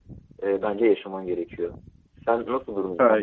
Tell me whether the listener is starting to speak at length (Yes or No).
No